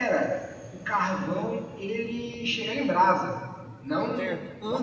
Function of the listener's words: taking over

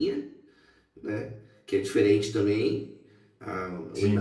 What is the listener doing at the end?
listening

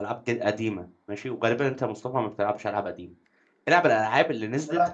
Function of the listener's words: listening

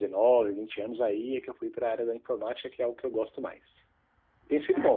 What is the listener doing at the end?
listening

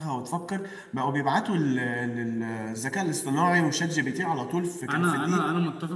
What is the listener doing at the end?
taking over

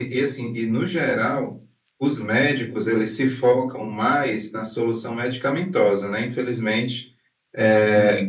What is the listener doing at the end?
listening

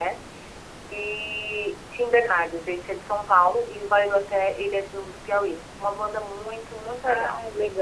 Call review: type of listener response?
taking over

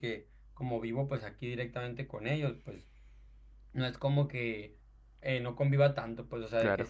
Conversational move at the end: listening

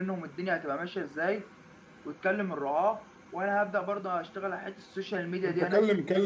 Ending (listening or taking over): taking over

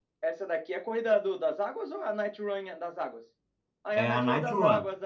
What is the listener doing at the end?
taking over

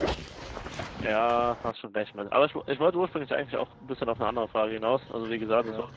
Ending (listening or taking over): listening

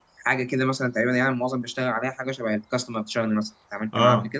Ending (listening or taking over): taking over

